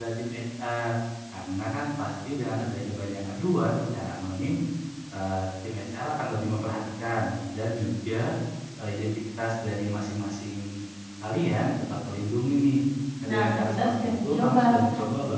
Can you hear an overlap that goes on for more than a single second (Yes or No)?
Yes